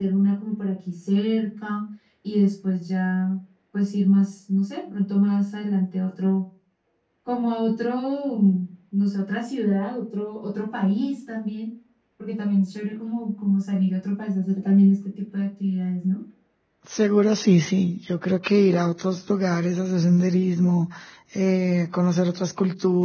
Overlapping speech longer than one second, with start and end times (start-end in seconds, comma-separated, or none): none